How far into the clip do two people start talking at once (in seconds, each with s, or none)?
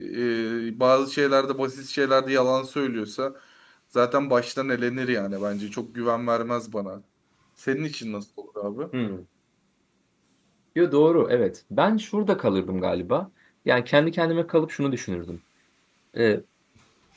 none